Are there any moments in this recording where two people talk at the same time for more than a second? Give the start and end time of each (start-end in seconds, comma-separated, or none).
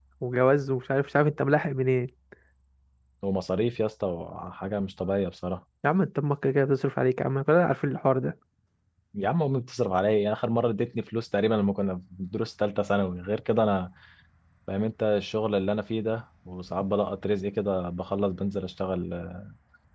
none